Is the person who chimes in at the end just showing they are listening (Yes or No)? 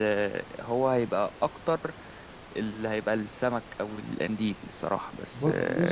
No